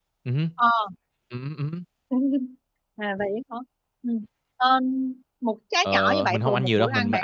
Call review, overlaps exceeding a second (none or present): present